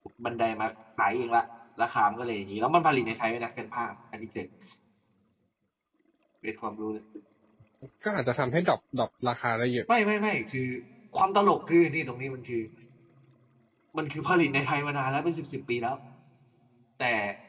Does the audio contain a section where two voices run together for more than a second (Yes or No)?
No